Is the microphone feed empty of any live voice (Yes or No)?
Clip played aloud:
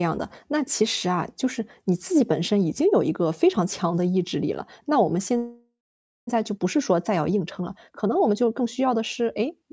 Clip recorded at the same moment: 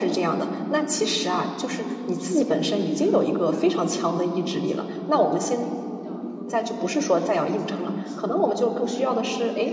No